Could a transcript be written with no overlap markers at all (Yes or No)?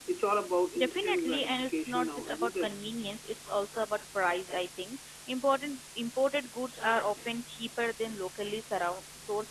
No